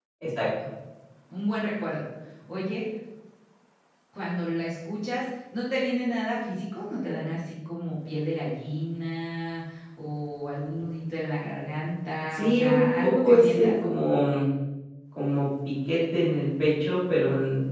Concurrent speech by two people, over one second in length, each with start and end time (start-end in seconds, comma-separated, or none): 12.3-13.7